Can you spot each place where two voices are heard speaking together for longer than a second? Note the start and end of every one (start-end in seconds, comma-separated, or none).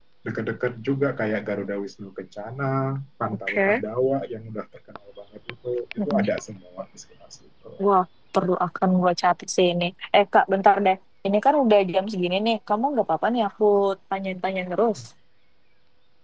none